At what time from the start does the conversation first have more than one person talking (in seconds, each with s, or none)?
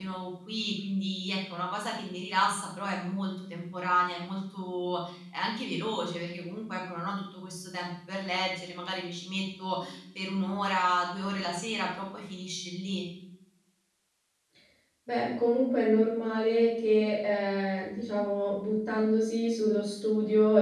none